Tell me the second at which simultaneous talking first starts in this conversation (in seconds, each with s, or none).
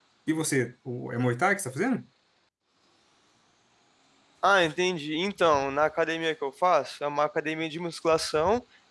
none